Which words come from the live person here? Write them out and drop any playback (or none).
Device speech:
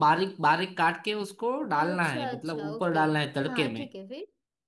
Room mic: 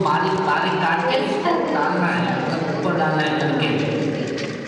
वैसे खाते हो तुम